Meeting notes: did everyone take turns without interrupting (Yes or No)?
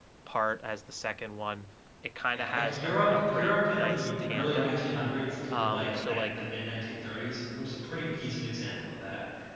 No